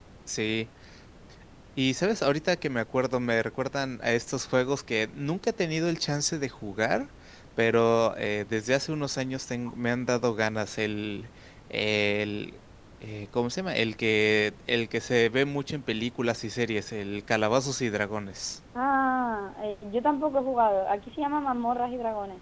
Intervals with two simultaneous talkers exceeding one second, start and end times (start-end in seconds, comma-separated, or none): none